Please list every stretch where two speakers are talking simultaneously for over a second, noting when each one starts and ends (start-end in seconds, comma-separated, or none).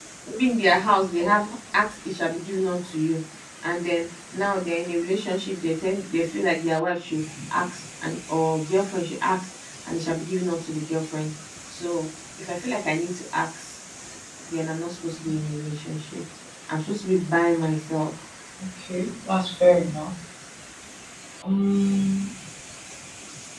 none